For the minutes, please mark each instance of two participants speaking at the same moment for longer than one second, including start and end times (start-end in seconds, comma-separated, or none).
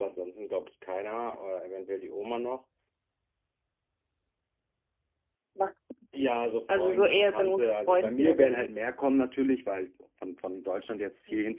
6.7-8.7